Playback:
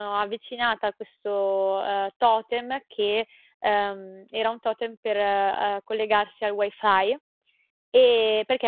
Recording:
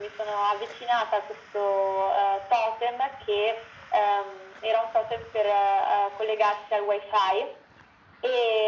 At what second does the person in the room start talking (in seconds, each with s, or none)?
none